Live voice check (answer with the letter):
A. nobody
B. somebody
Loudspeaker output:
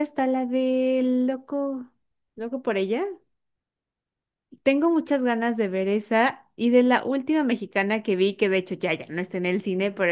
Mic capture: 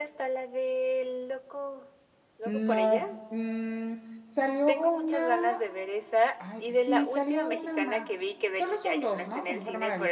B